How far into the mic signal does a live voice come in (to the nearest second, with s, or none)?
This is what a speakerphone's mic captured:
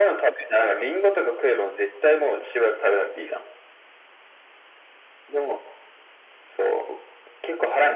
none